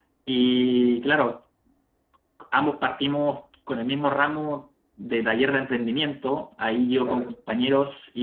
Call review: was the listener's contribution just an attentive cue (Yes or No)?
Yes